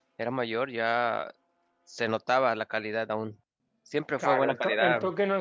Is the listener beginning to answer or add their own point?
Yes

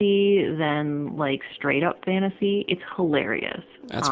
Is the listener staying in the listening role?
No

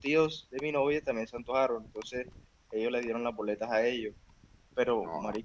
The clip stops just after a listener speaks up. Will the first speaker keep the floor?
Yes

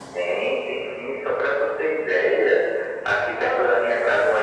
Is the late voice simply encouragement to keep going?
Yes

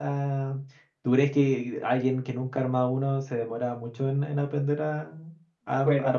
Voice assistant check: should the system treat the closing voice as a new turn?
Yes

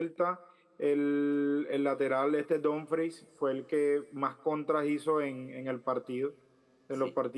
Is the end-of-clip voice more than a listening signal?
No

